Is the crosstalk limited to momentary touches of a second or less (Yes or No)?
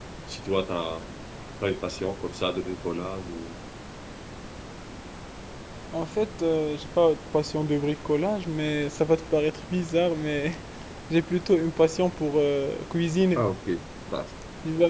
Yes